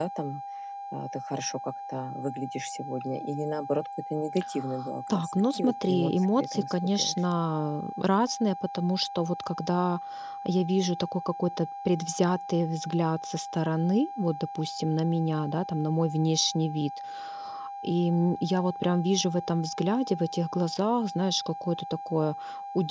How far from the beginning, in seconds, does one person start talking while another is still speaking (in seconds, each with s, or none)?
5.1 s